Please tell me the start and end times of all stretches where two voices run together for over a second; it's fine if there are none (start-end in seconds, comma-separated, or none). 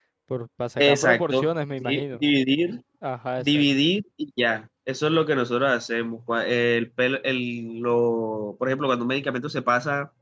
0.8-2.2